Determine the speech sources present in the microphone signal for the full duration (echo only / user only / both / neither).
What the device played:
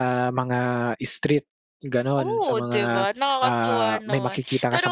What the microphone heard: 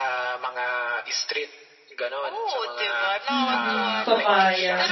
both